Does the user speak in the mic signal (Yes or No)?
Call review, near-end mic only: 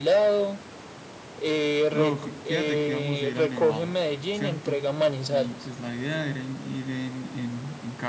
Yes